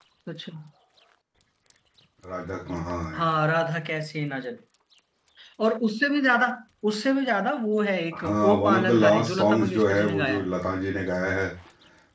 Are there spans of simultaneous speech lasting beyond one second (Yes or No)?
Yes